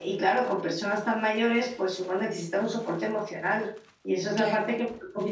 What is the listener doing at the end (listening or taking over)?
listening